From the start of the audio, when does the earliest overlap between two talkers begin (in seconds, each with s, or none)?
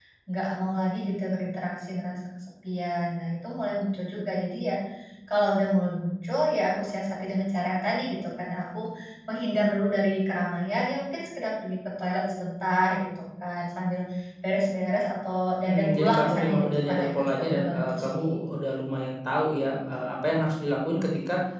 15.6 s